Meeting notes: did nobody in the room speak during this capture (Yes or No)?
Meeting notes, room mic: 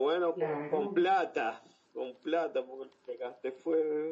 No